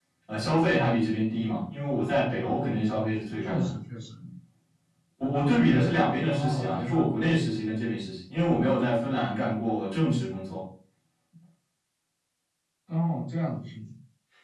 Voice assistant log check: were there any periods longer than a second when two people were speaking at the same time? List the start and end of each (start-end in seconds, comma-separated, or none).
5.7-6.9